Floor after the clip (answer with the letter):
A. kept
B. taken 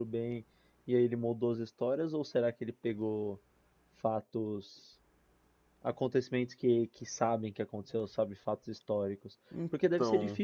A